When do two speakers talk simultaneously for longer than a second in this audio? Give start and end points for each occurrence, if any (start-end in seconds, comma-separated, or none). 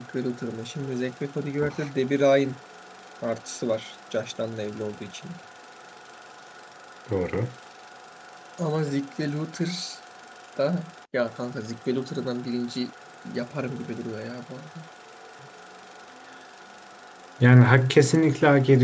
none